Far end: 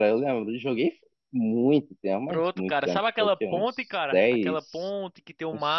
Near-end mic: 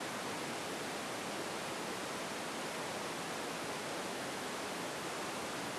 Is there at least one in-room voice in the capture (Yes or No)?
No